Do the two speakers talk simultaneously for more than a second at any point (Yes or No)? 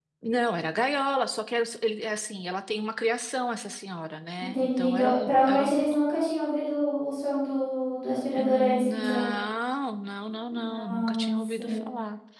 Yes